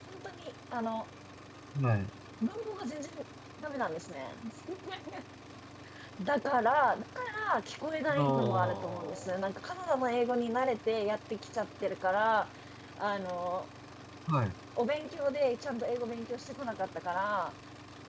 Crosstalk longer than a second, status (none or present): present